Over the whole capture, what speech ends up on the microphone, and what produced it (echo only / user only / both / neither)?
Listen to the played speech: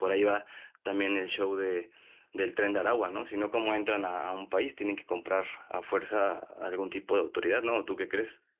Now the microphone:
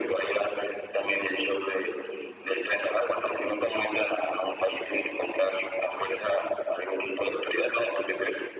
echo only